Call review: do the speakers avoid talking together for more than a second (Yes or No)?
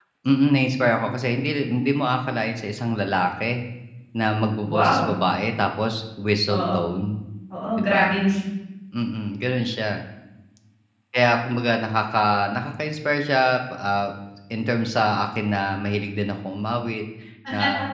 Yes